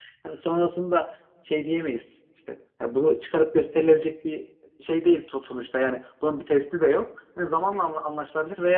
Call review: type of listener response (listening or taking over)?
listening